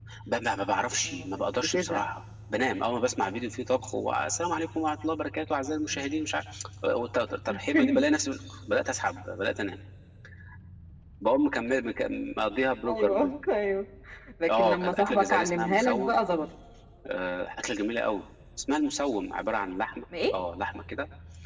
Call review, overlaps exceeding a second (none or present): present